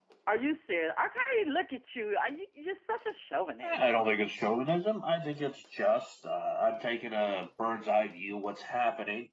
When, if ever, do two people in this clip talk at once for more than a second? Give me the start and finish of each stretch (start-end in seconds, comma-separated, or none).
none